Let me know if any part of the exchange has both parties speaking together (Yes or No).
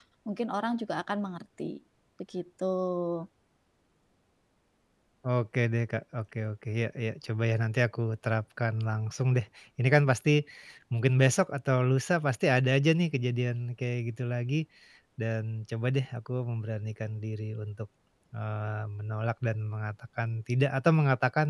No